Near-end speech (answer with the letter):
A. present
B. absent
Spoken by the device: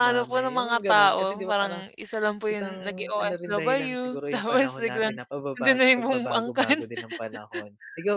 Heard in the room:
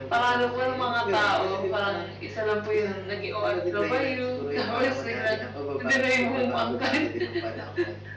B